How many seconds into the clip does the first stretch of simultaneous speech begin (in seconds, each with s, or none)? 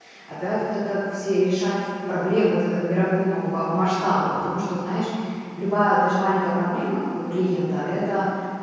none